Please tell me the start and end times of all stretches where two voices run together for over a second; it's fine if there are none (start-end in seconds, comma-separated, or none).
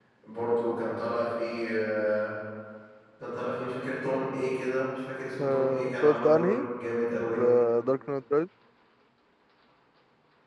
5.4-6.6